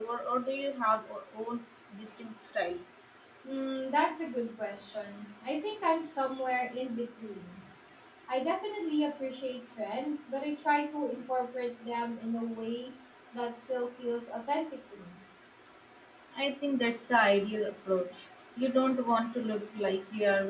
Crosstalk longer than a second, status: none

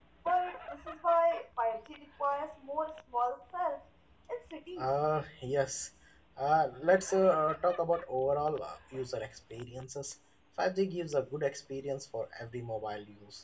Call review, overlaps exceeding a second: none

